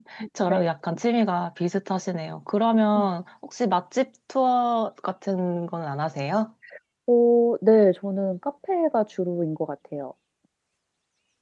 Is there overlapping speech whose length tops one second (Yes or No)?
No